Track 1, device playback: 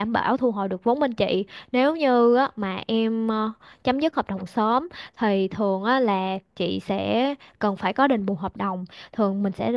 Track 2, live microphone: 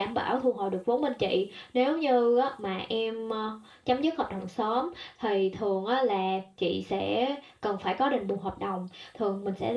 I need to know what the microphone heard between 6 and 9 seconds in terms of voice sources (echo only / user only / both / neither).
echo only